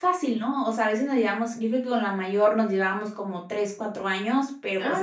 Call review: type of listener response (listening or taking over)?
listening